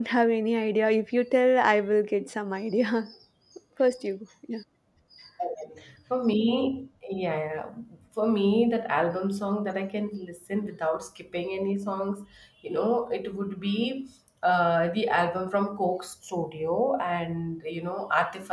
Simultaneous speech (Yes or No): No